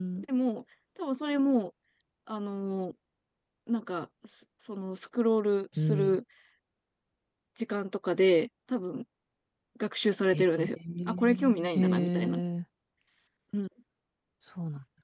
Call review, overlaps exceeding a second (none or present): present